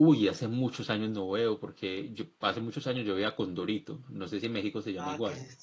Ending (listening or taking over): taking over